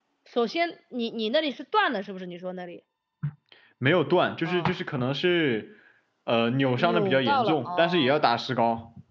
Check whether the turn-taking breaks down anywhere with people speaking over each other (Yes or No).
Yes